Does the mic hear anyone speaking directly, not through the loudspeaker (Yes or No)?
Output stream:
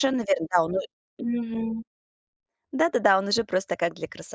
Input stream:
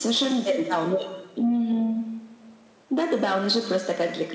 No